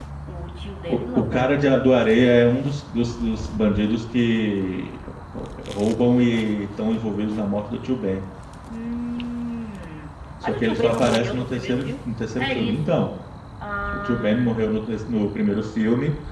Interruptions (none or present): present